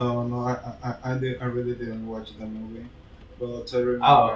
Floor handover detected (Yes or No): No